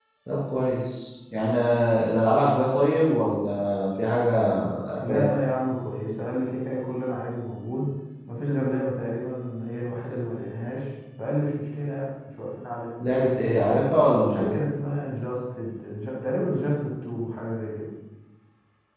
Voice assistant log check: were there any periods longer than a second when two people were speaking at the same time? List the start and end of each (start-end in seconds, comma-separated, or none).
none